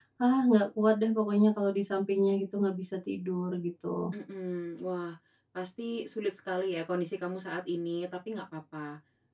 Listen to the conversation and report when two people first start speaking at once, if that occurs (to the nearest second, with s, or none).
none